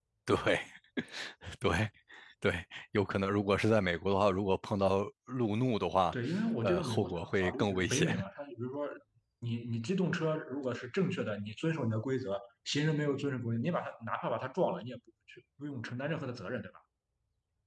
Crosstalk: present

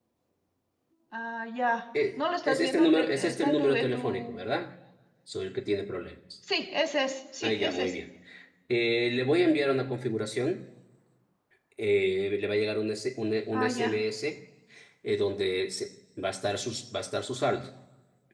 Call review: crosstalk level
present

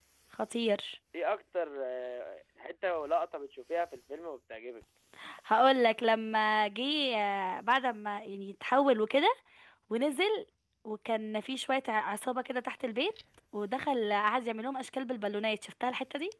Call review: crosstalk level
none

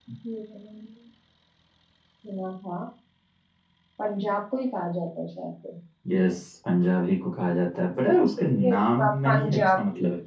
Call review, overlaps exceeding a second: present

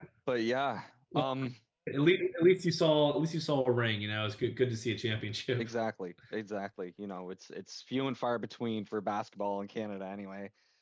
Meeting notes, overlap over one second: none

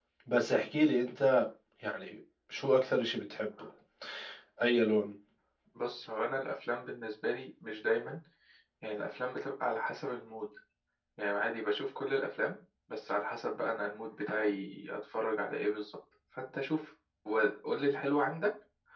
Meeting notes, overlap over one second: none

